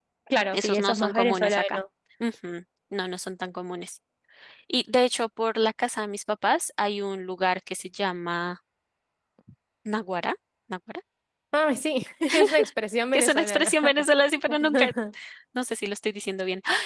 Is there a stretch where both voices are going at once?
Yes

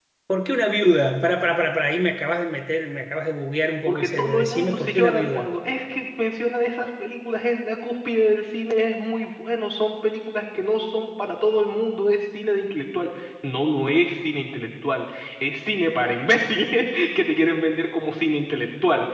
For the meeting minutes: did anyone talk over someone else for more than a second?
Yes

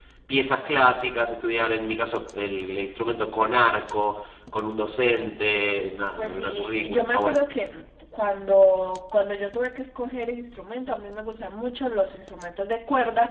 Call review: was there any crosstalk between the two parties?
Yes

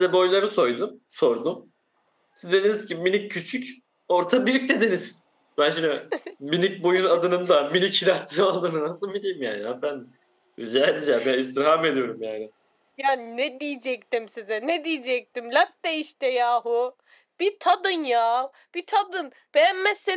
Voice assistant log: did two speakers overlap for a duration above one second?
No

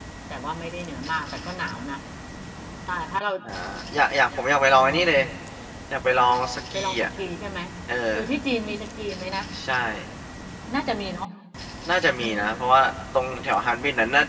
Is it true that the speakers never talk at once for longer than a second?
Yes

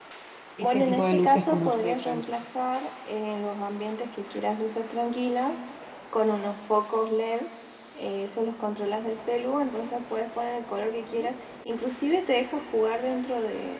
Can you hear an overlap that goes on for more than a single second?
Yes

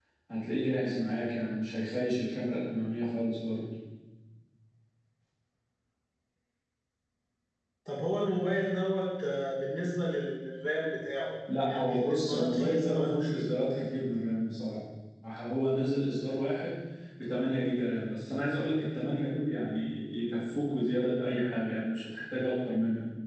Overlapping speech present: Yes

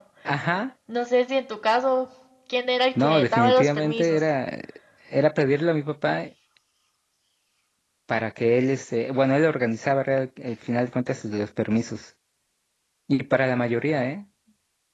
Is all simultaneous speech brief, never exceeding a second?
No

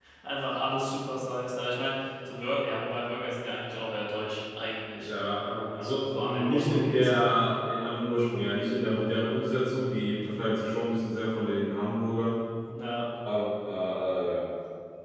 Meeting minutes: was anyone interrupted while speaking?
Yes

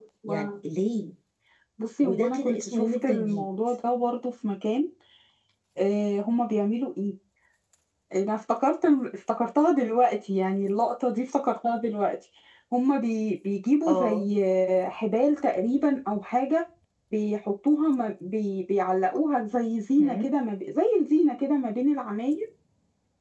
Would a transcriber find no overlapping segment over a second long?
No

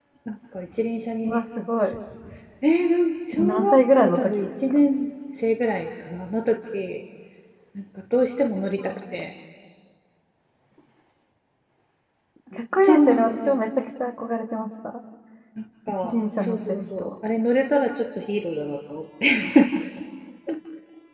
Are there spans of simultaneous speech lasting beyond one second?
Yes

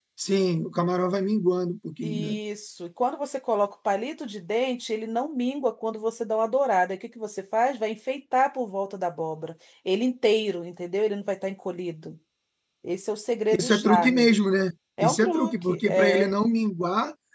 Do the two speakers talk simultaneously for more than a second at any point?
Yes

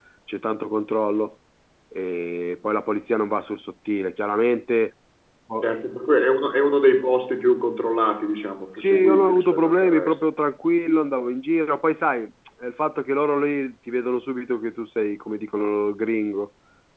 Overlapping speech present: Yes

